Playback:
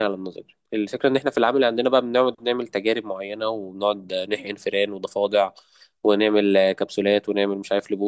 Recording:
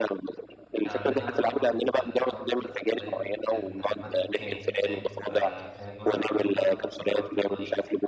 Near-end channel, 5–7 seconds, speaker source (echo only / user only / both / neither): both